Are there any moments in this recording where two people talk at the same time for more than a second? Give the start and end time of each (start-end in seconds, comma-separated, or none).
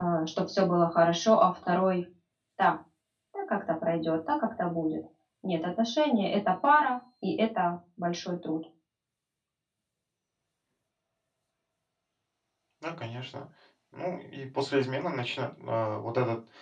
none